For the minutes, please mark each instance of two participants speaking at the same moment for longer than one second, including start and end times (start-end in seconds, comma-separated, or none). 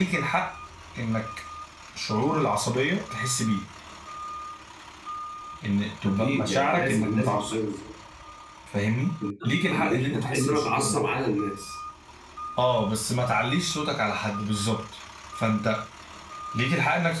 6.1-7.5, 9.4-11.0